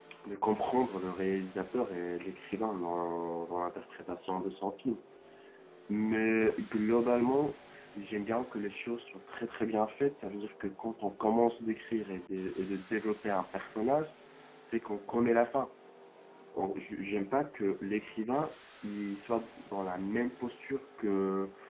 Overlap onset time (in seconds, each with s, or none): none